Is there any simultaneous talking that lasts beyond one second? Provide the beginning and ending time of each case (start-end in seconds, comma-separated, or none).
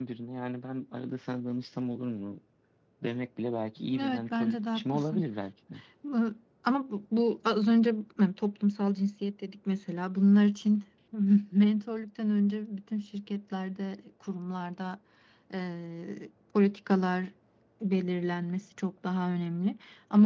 4.0-5.2